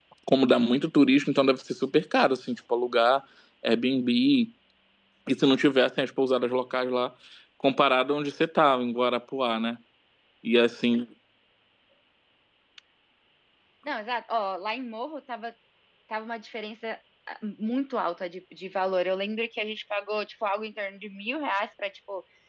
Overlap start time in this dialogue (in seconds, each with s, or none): none